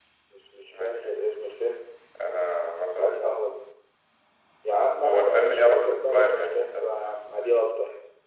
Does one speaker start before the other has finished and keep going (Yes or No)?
Yes